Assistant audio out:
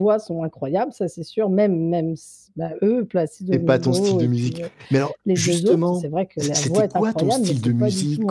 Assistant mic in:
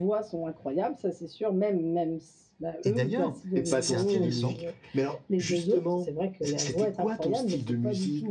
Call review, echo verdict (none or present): present